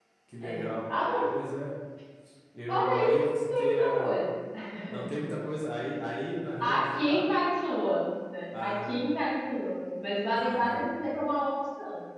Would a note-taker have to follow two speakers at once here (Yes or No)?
Yes